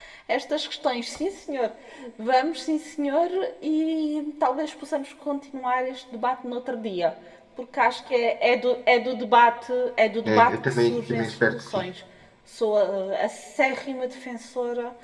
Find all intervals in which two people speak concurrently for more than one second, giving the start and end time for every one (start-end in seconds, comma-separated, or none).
10.2-11.8